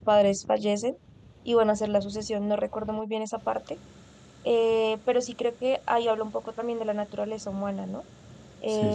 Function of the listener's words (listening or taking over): listening